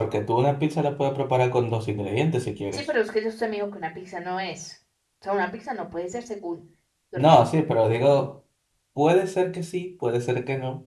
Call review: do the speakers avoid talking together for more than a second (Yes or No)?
Yes